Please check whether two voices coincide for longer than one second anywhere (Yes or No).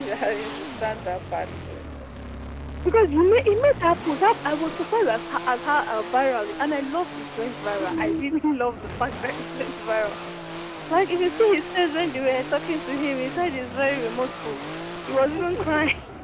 No